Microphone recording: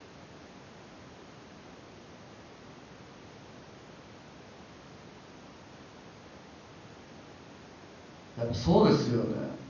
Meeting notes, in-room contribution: present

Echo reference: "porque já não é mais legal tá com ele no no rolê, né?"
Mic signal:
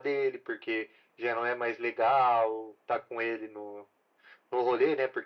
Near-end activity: none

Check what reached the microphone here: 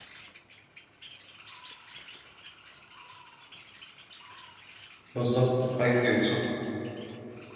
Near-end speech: present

